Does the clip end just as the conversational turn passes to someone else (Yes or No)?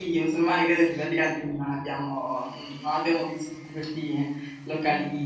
No